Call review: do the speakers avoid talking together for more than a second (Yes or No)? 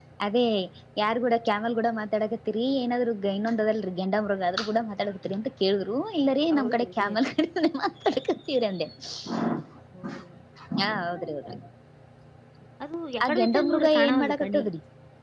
No